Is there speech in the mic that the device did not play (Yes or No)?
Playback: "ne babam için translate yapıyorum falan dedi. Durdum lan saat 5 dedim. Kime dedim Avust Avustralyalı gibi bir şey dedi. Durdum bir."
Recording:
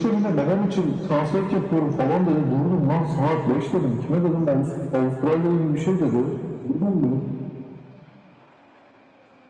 No